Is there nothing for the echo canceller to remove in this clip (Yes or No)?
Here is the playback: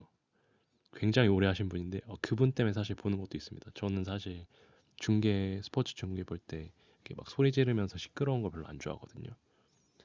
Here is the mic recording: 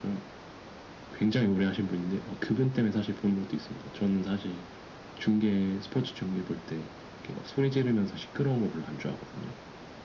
No